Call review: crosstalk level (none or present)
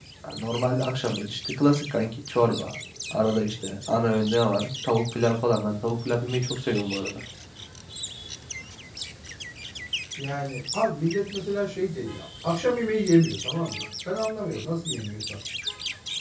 none